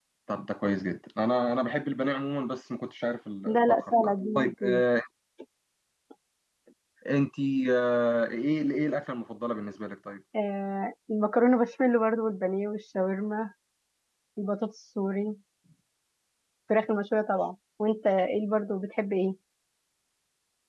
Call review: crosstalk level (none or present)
present